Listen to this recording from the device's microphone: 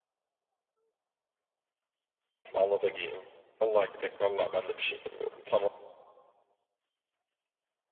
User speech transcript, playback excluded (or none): Vallahi da gideyim. Vallahi gidek. Vallahi ben de bir şey demiyorum. Tamam.